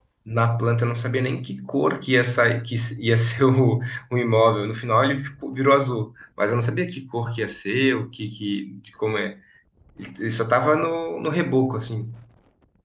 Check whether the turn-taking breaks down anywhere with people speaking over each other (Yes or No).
No